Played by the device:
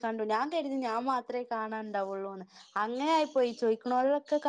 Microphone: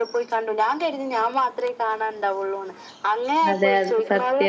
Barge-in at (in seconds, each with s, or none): 3.5 s